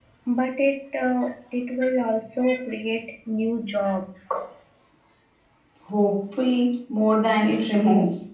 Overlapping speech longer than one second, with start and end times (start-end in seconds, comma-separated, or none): none